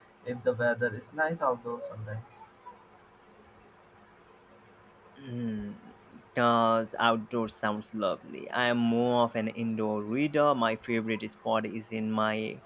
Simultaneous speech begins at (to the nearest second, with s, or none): none